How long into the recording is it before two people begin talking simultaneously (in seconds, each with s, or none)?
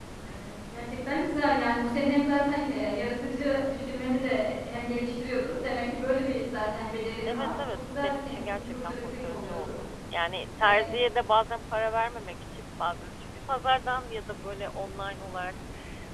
7.3 s